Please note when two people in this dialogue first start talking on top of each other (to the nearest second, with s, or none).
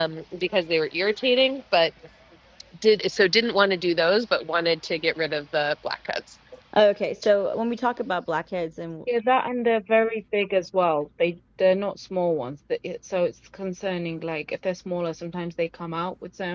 none